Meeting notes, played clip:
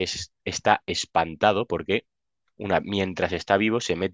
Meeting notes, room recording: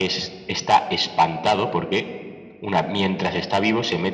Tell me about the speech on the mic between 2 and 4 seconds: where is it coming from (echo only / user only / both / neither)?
echo only